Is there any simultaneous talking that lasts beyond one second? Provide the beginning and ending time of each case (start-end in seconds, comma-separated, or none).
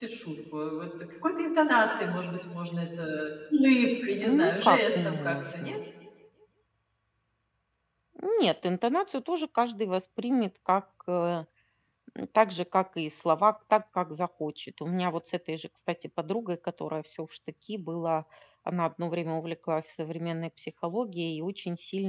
4.4-5.8